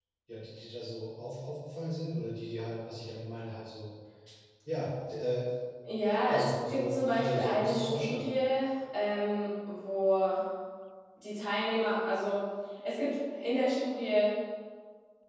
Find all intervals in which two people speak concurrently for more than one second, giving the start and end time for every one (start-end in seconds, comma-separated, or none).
6.3-8.4